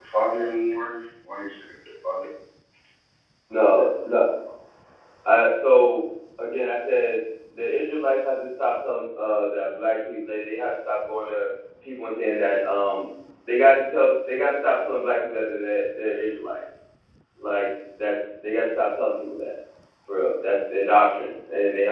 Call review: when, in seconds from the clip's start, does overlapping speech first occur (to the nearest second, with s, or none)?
none